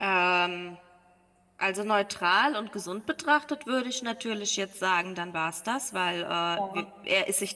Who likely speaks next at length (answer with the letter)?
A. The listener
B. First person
B